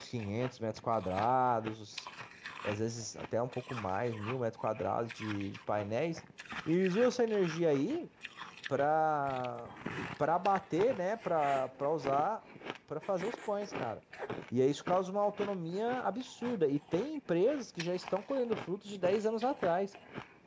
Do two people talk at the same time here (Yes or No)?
No